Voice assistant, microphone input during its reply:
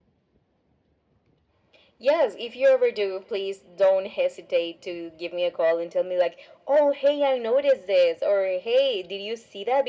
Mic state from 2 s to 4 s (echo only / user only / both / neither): echo only